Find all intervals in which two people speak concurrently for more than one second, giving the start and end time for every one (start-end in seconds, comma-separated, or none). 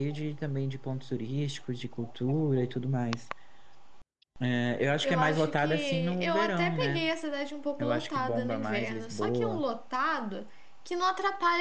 5.0-7.1, 7.8-9.6